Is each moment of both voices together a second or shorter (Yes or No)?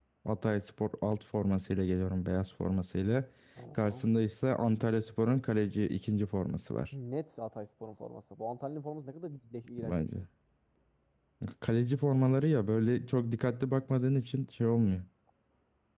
Yes